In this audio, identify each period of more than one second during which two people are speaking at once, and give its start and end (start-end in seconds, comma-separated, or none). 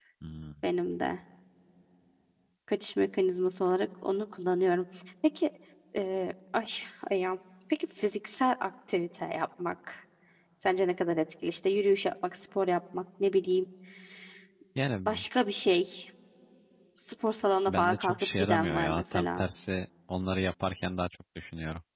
17.7-19.4